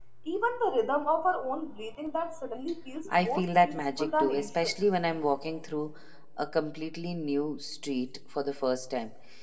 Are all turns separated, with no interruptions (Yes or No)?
No